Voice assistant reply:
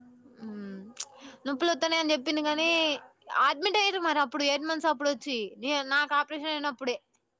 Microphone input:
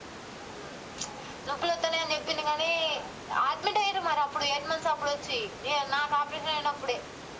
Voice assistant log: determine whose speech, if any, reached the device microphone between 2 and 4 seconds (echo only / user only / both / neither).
echo only